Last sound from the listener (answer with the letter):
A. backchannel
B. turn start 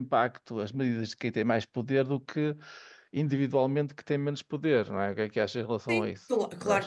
B